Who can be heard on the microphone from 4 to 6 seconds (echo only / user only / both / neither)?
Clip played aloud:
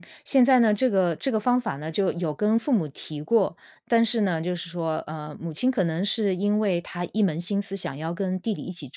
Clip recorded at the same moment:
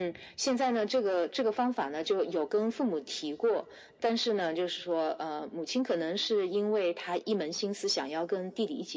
echo only